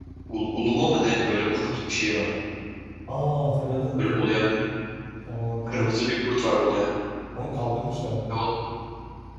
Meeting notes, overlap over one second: none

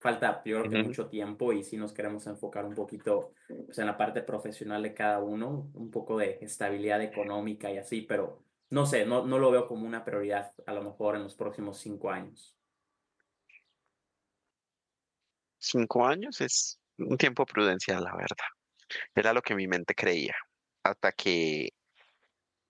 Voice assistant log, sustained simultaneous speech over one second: none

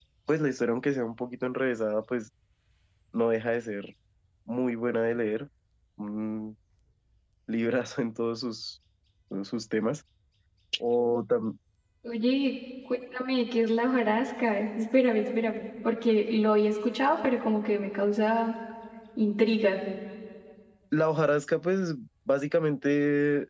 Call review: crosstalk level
none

